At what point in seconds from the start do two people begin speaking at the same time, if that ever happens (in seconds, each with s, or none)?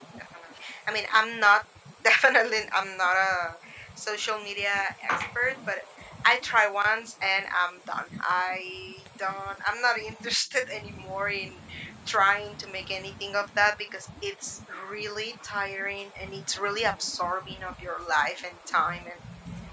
none